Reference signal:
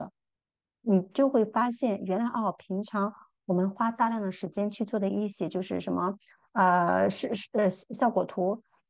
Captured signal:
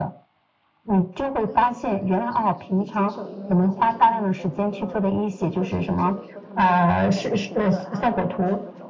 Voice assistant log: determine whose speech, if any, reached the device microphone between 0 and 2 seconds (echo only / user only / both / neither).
both